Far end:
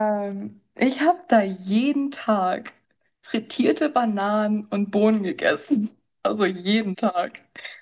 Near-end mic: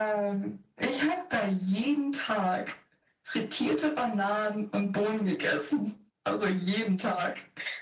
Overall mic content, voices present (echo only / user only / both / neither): echo only